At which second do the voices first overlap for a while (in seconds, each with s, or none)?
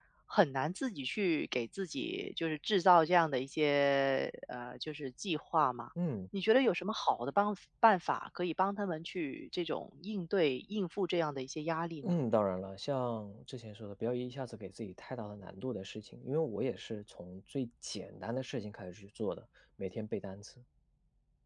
none